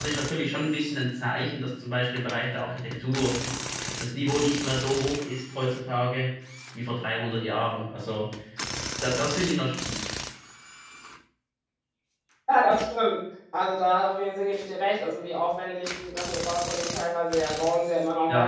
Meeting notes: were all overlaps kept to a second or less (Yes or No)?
Yes